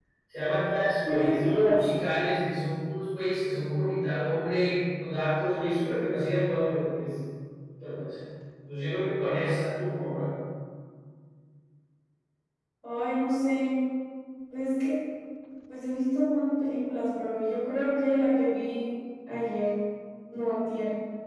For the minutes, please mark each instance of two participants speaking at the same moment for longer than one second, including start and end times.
none

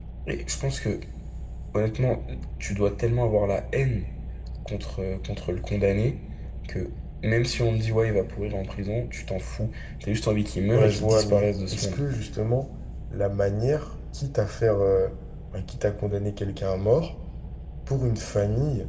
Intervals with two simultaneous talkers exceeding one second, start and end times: 10.7-12.0

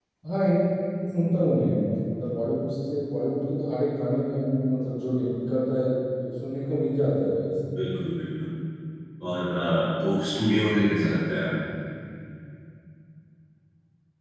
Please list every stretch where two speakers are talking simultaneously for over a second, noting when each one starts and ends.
none

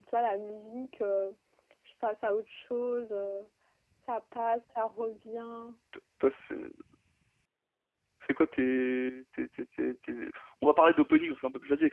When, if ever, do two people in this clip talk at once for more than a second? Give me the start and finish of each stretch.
none

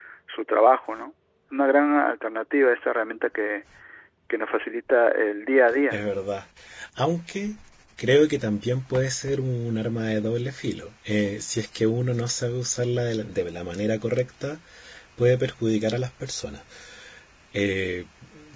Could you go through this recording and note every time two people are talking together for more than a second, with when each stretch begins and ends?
none

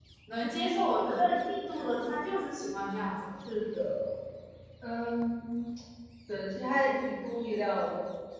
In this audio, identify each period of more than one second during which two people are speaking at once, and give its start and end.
none

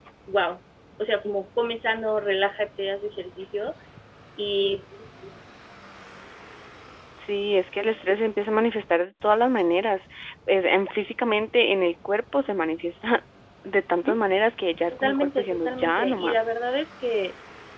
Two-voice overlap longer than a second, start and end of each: 14.9-16.4

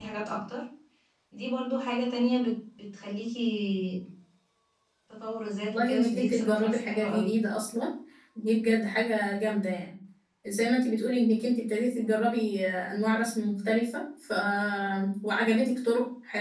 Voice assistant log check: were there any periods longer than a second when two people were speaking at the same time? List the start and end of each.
5.7-7.4

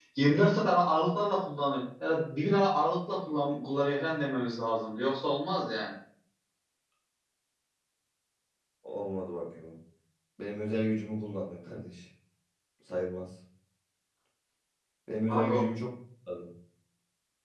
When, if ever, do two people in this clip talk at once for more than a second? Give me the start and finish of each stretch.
none

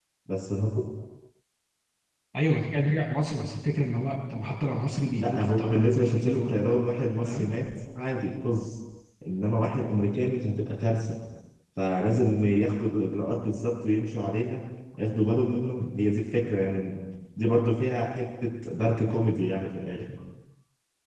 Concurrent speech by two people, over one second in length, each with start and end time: 5.2-6.5

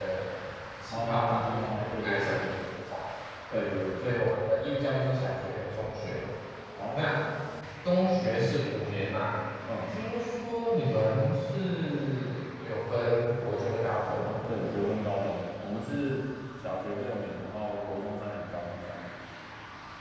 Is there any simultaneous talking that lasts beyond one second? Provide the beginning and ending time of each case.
0.9-2.6

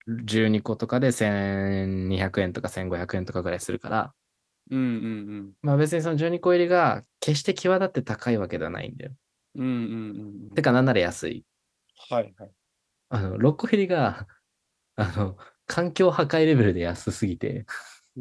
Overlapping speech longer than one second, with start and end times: none

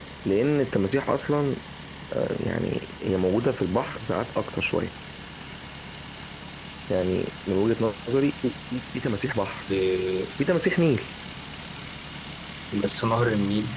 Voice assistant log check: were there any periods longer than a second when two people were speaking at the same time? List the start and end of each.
none

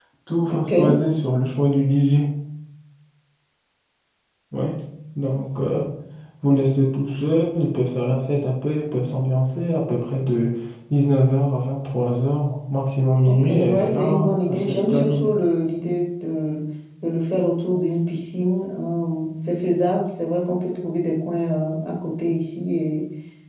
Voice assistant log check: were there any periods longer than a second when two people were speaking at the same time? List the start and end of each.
13.3-15.2

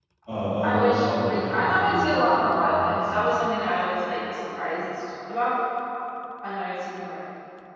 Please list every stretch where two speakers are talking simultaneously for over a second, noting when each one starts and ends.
0.6-3.2

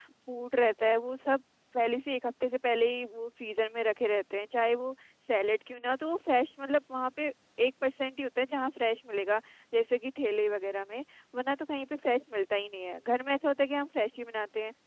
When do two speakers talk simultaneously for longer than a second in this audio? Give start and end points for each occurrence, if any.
none

